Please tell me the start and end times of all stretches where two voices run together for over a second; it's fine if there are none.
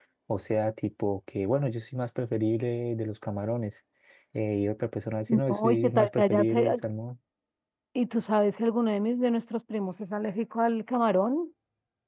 5.3-6.8

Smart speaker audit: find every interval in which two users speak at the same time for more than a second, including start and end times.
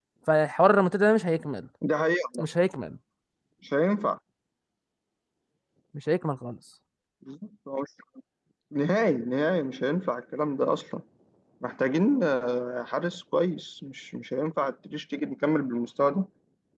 none

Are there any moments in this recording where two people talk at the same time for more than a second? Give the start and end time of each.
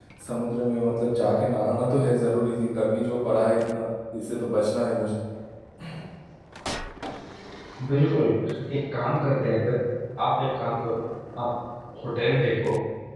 none

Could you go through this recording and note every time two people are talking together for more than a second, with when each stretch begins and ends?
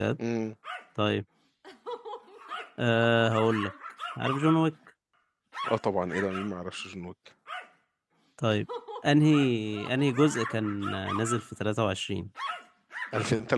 none

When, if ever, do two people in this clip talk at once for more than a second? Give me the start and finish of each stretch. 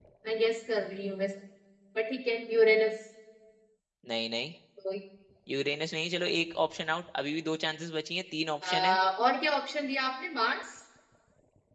none

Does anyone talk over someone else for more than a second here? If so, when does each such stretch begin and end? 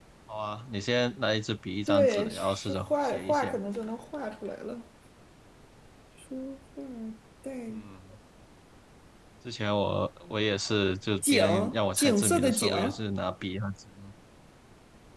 1.9-3.6, 11.3-12.7

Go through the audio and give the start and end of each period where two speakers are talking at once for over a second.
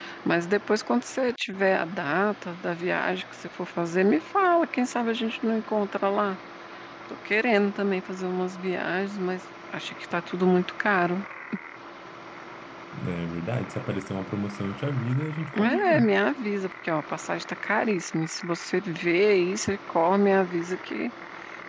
none

